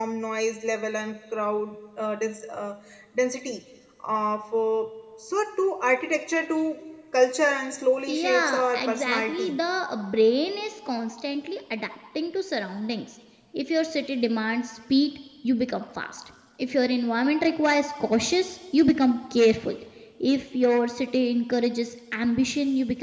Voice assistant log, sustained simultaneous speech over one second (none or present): present